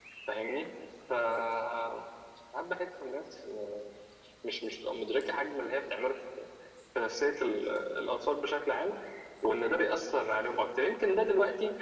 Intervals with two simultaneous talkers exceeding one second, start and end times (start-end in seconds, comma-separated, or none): none